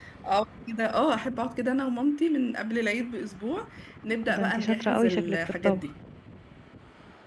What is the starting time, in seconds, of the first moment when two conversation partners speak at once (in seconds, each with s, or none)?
4.3 s